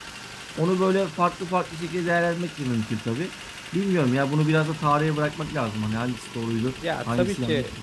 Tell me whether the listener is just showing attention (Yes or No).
No